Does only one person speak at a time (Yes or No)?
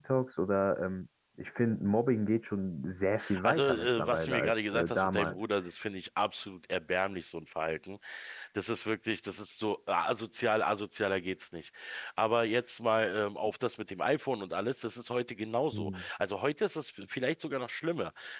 No